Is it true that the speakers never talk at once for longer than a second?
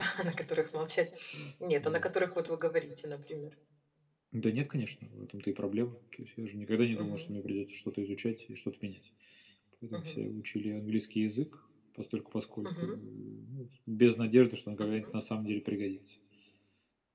Yes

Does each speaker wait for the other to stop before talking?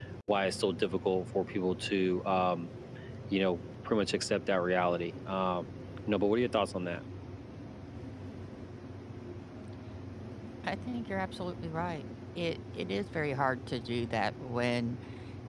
Yes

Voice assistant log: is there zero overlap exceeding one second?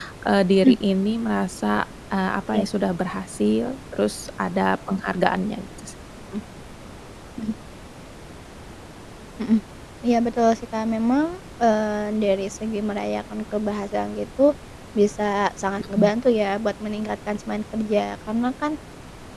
Yes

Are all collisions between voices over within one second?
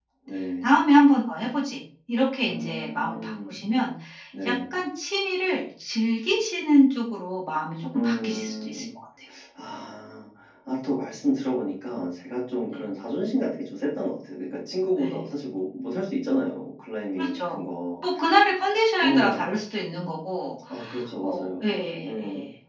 No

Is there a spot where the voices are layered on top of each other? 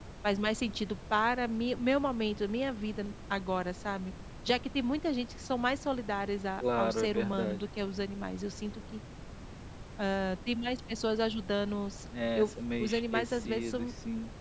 Yes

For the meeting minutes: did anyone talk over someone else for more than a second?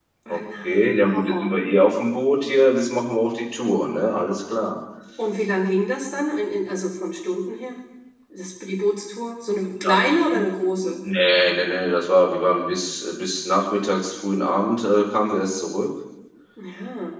Yes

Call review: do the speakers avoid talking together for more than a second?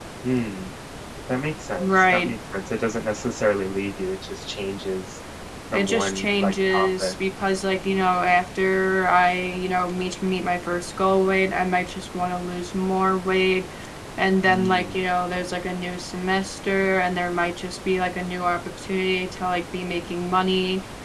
No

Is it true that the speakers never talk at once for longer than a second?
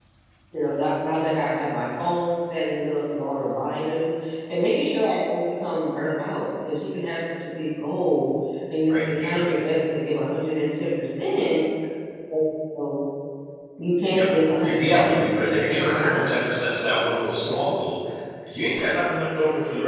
No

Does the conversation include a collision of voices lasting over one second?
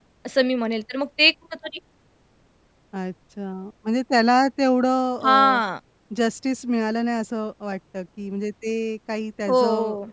No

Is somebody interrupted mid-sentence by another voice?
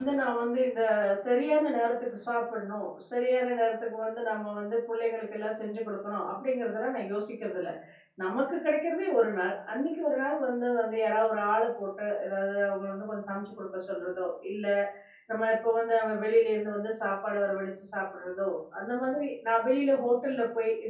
No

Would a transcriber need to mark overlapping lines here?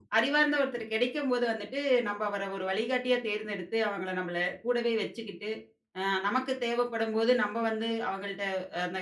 No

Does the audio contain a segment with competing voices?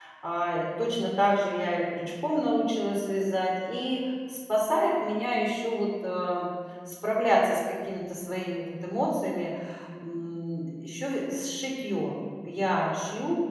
No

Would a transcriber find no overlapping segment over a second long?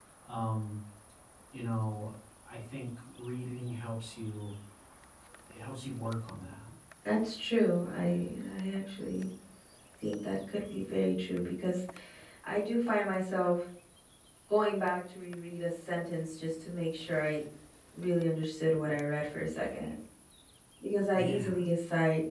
Yes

